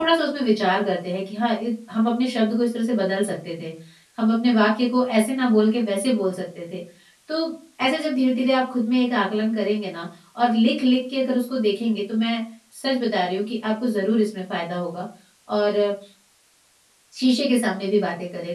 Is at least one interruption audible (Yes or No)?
No